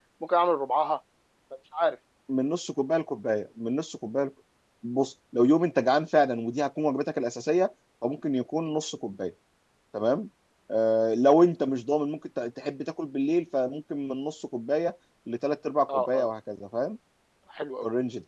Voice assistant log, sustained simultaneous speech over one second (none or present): none